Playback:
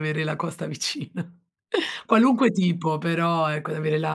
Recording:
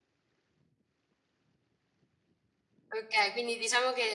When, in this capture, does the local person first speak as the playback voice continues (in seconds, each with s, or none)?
2.9 s